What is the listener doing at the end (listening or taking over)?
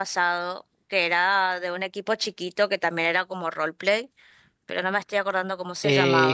taking over